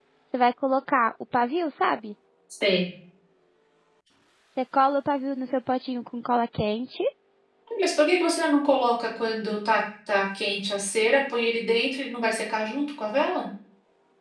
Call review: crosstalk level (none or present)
none